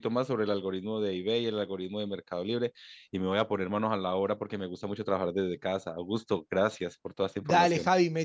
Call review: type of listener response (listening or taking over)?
taking over